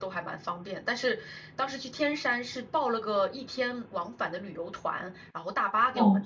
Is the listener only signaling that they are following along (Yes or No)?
No